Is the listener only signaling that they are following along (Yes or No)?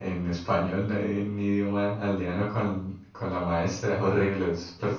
No